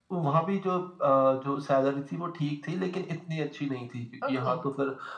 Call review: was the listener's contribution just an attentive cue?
Yes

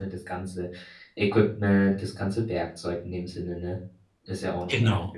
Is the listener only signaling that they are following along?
No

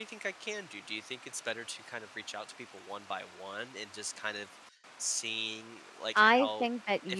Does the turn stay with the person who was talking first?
No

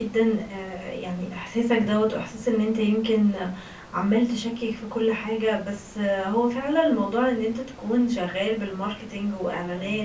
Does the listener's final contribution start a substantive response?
No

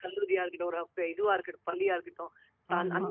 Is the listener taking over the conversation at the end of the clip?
No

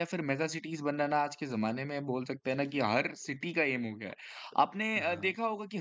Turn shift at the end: No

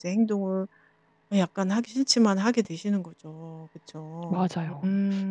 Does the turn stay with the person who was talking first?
Yes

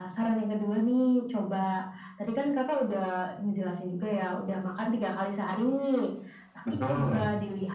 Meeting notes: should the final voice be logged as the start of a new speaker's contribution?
No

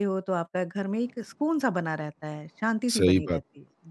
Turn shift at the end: Yes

